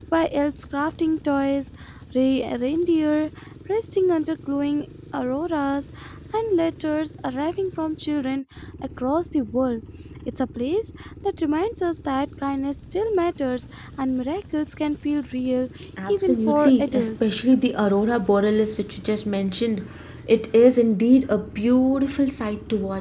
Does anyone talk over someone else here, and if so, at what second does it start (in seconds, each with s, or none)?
16.1 s